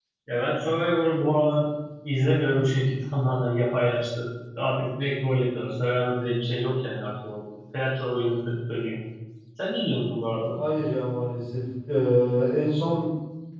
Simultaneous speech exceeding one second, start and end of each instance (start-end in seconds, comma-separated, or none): none